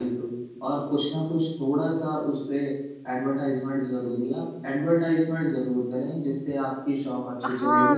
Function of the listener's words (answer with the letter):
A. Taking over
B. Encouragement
A